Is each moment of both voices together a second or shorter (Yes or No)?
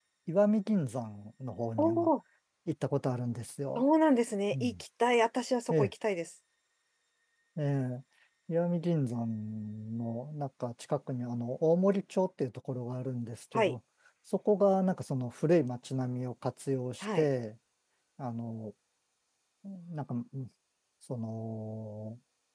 Yes